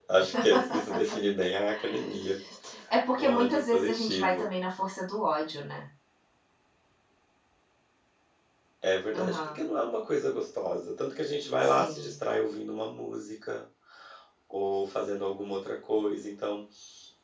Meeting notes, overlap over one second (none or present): present